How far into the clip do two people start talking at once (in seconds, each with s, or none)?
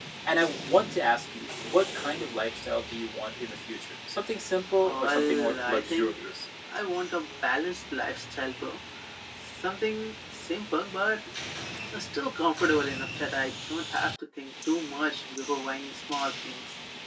4.8 s